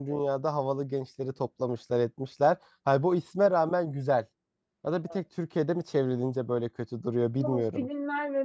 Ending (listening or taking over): taking over